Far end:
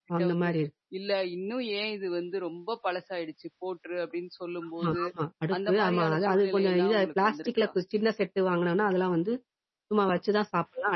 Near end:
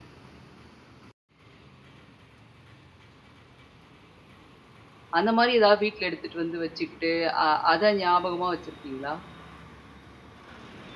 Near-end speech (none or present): present